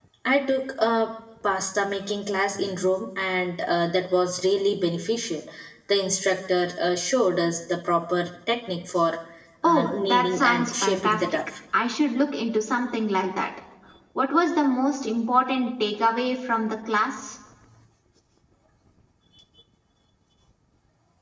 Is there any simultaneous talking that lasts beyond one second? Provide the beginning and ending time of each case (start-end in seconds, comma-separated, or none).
9.6-11.2